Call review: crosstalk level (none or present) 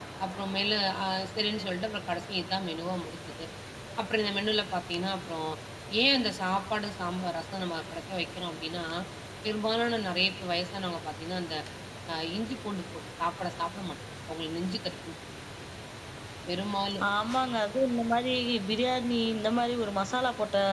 none